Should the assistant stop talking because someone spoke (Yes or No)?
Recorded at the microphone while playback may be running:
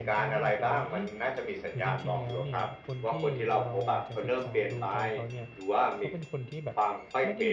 Yes